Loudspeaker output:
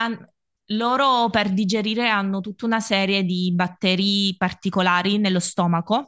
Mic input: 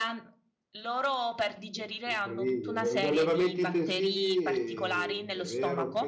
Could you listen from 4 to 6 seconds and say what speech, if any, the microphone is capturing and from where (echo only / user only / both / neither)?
both